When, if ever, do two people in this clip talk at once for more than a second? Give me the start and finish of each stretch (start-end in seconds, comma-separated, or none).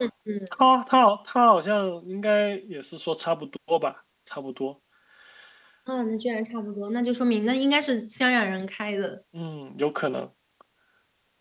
none